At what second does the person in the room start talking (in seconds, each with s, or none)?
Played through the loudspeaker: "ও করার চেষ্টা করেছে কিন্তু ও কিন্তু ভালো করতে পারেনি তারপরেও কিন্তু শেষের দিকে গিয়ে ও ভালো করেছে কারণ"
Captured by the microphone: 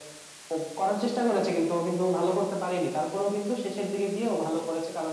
none